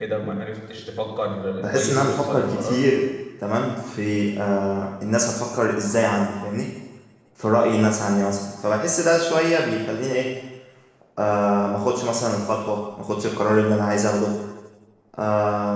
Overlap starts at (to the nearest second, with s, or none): 2 s